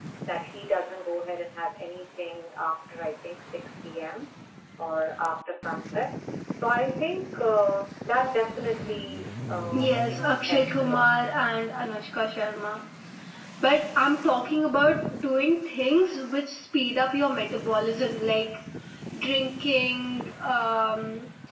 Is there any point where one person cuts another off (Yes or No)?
Yes